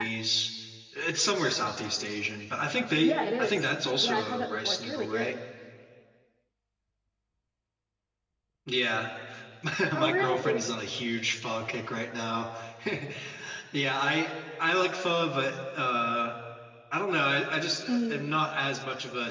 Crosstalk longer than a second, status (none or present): present